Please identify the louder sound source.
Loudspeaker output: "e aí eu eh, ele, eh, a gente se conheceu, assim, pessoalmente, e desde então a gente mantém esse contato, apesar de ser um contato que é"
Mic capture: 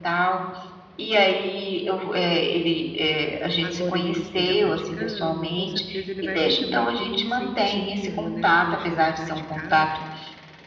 echo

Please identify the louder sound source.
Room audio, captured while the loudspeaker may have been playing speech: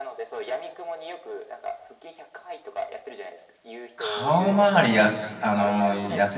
user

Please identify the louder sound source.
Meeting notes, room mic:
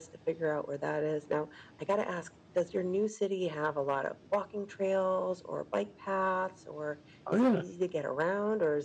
user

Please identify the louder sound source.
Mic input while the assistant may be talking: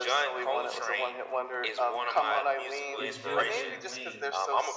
echo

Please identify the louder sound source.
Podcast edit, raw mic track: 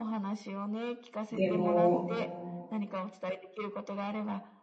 user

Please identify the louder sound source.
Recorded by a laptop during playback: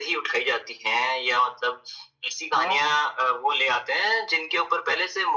echo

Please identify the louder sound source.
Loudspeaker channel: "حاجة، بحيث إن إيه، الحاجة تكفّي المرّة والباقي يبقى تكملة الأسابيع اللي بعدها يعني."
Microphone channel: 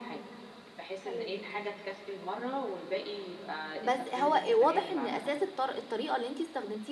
user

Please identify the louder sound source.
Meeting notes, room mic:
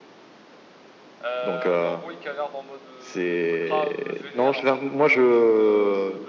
echo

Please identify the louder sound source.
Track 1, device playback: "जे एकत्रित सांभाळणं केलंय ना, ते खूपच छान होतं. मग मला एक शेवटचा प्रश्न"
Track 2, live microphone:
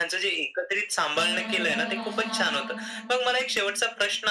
echo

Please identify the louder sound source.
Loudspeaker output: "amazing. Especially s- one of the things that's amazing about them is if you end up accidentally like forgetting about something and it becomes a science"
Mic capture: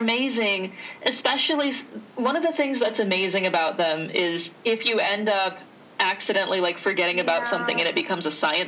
echo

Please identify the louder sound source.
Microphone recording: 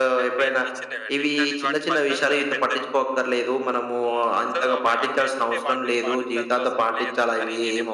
user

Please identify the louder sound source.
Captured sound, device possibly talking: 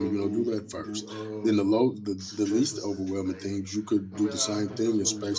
user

